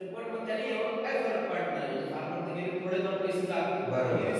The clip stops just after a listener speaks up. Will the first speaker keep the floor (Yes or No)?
Yes